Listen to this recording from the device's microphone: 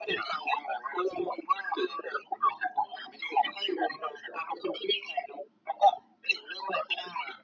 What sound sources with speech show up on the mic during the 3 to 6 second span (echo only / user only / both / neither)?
echo only